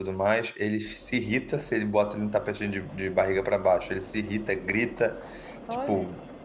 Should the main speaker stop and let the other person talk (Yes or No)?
No